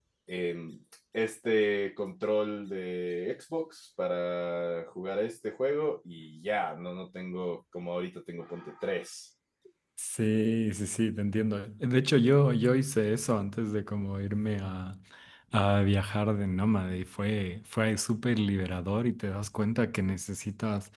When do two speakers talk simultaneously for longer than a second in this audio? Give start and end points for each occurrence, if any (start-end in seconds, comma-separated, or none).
none